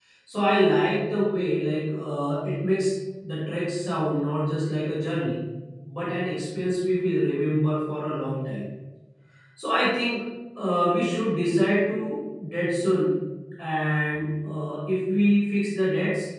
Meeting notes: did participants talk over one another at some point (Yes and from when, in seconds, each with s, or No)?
No